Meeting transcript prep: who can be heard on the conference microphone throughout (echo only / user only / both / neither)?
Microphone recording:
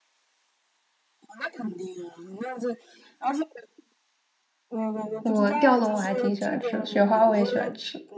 both